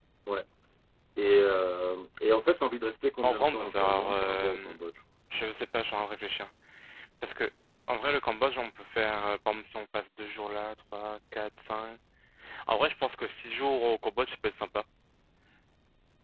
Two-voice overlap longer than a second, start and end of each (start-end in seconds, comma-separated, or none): 3.2-4.7